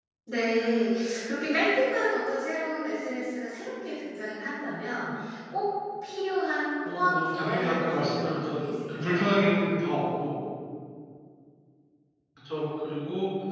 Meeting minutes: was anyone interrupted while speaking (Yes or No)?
Yes